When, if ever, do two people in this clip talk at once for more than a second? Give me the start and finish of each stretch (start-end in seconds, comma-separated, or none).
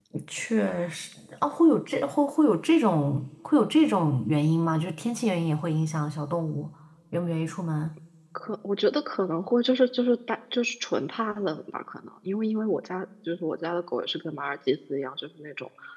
none